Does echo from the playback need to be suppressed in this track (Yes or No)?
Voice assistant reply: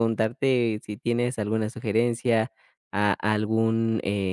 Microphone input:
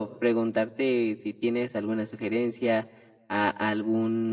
Yes